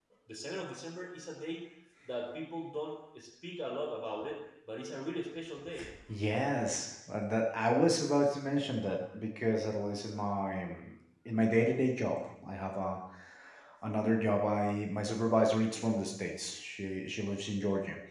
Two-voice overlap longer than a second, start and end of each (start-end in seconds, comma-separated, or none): none